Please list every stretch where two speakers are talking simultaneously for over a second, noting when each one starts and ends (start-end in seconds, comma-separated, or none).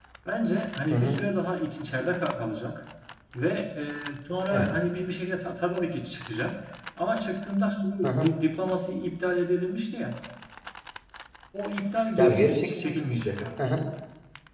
12.2-13.6